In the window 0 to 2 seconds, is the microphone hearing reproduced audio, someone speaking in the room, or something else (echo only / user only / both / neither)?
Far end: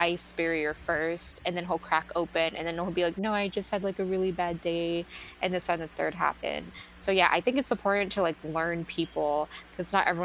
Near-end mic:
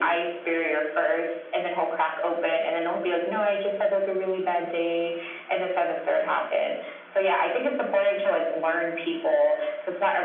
echo only